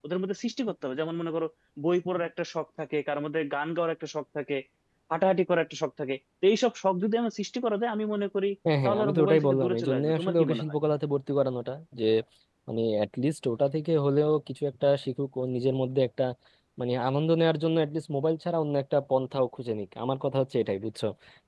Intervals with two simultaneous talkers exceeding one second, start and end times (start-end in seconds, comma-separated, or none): 8.8-10.6